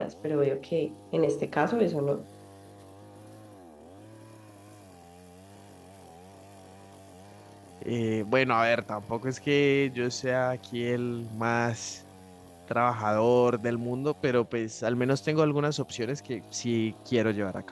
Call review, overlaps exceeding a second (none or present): none